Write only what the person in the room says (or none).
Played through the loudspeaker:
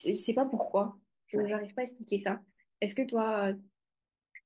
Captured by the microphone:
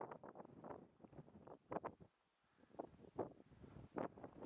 none